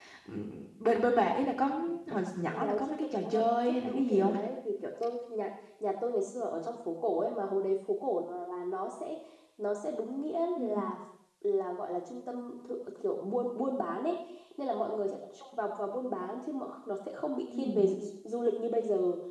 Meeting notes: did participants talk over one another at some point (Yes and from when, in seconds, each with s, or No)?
Yes, from 2.5 s